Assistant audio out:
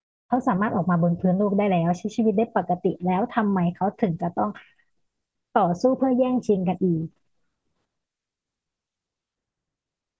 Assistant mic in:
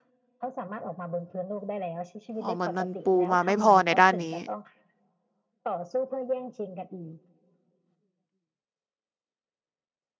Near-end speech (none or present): present